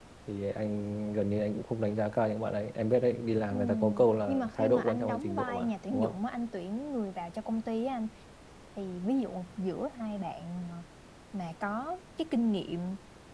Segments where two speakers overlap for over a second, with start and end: 4.3-6.2

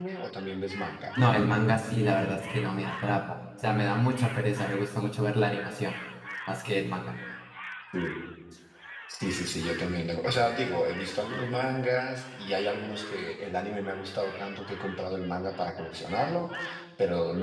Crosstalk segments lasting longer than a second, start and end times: none

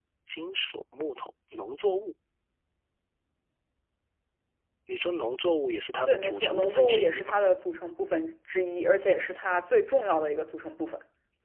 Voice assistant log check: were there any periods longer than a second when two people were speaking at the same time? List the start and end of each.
6.1-7.4

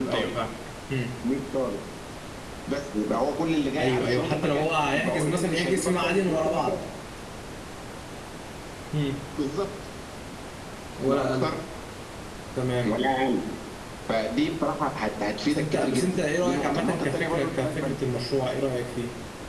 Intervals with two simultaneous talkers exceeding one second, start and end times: 3.8-6.8, 15.4-17.8

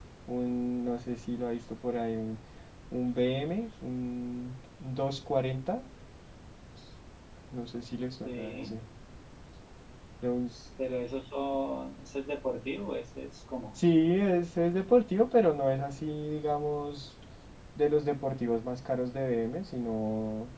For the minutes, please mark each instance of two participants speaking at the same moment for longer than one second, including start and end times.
none

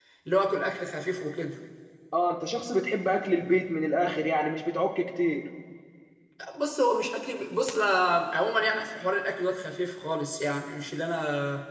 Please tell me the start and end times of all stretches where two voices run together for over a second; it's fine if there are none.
none

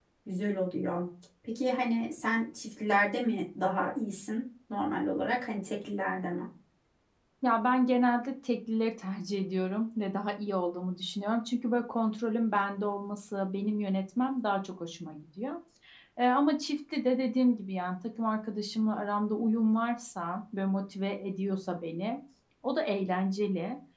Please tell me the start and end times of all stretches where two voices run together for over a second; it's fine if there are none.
none

